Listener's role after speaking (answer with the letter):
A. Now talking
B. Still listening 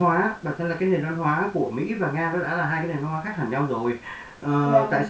B